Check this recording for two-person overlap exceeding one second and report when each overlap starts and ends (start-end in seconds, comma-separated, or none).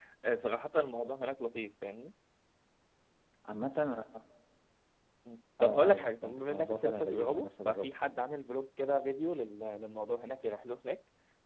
5.6-7.9